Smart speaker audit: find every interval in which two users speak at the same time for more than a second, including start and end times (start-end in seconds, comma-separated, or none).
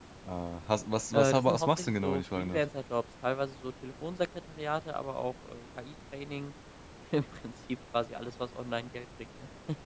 1.1-2.6